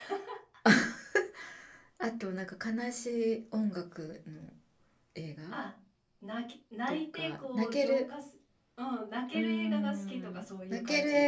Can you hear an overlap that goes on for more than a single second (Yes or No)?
Yes